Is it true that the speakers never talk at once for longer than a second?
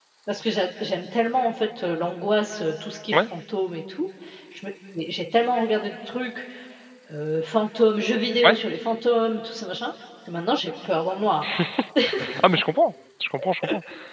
Yes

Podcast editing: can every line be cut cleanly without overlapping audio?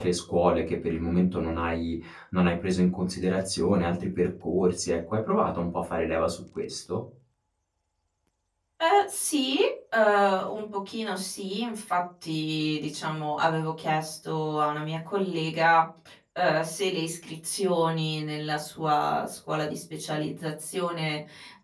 Yes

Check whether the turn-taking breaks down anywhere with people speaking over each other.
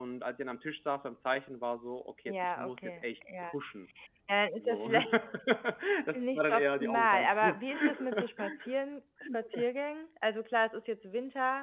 Yes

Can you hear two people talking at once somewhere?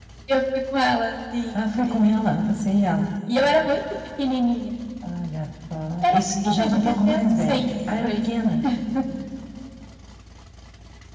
Yes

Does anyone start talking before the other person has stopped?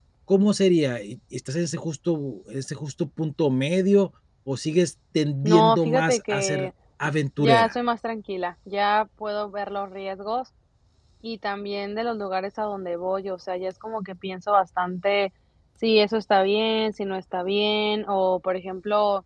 Yes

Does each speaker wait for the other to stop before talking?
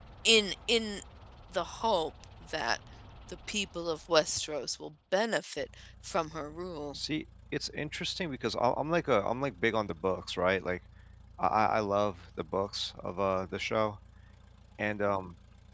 Yes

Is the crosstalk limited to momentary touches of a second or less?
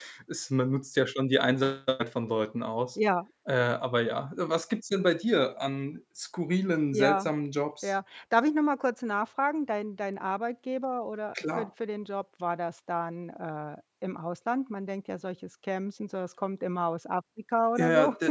Yes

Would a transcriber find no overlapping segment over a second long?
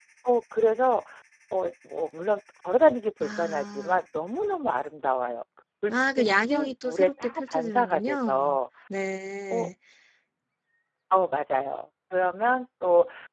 No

